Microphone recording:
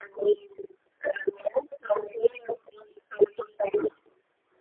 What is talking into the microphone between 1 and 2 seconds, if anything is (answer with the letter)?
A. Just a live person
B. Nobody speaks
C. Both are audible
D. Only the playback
D